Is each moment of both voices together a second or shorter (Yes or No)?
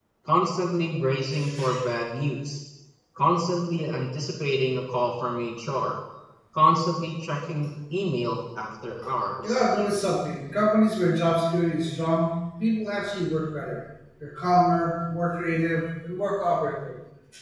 Yes